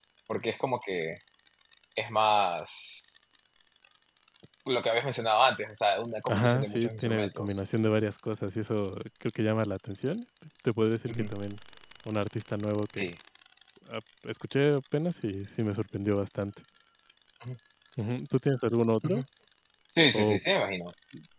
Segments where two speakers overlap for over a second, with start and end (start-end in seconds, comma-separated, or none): 6.3-7.6